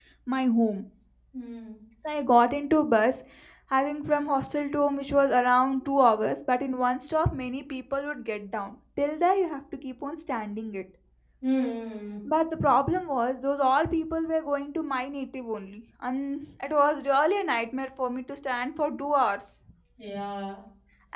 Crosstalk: none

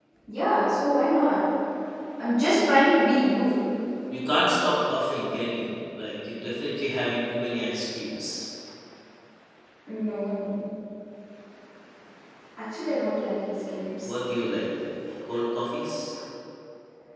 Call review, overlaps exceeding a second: none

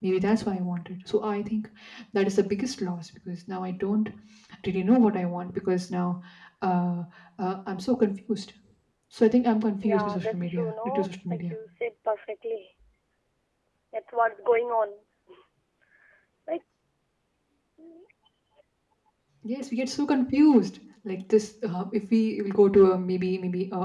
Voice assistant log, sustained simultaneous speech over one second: present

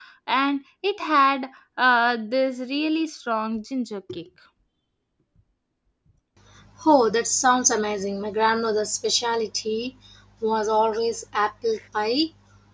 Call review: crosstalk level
none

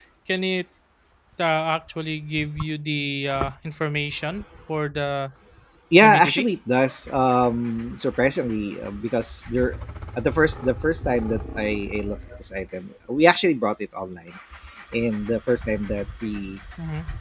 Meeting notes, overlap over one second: none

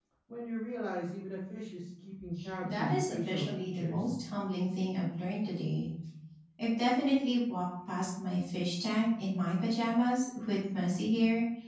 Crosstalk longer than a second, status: present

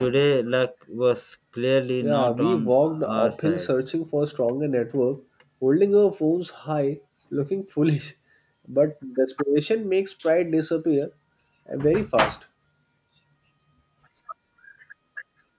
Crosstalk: present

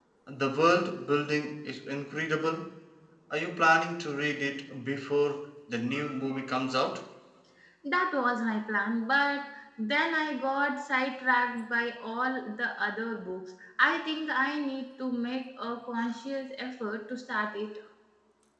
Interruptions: none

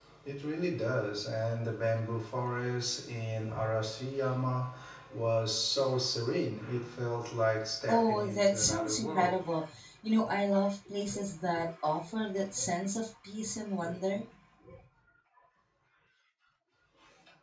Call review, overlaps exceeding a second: present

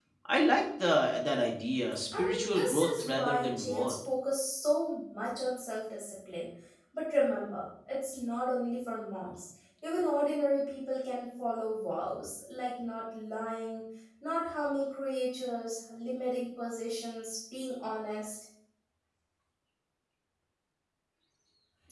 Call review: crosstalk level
present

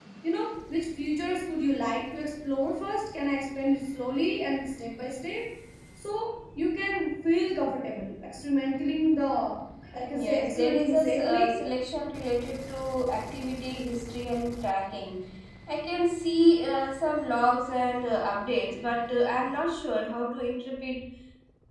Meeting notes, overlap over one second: present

